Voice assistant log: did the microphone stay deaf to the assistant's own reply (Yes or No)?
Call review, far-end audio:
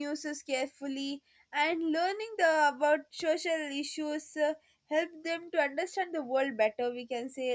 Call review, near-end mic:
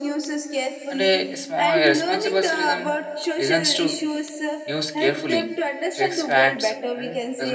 No